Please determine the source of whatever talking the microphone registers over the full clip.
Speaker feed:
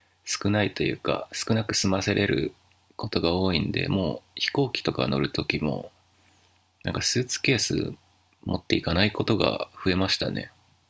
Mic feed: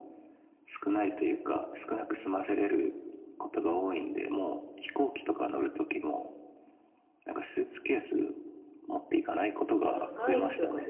both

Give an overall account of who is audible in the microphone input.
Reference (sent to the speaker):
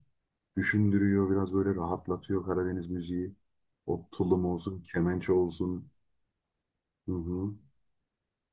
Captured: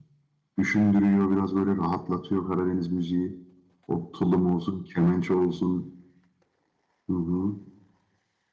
echo only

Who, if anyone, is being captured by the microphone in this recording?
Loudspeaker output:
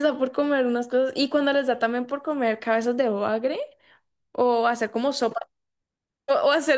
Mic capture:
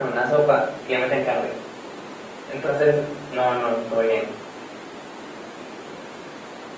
user only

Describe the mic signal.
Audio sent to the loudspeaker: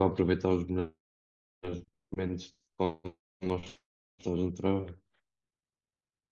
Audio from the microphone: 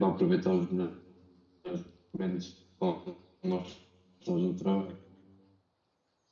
echo only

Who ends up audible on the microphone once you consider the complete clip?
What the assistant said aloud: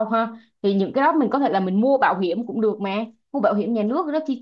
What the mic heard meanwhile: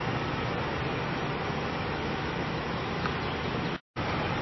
neither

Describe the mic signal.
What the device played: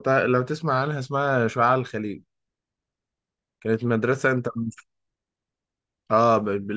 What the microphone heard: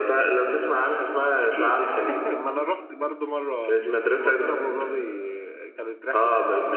both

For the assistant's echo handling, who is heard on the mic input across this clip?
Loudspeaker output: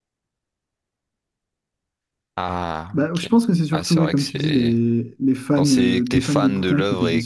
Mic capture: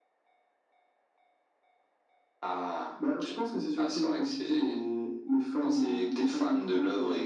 echo only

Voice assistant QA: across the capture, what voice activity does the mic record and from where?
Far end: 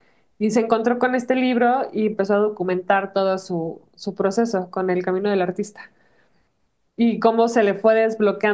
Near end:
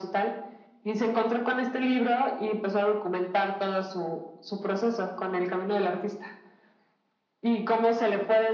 echo only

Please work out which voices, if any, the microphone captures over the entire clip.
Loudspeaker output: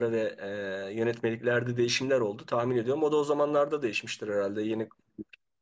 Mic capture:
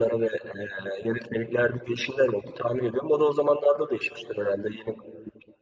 echo only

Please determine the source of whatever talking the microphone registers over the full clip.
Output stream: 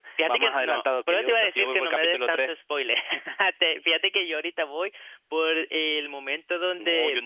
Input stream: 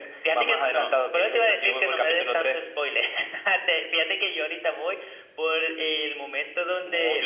echo only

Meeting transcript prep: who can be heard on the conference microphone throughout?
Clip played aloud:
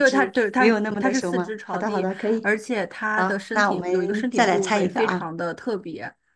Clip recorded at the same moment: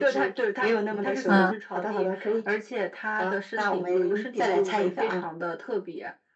both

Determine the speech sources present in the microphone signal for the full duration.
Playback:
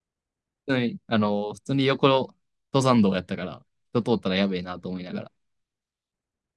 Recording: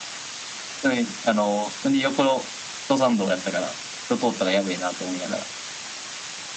echo only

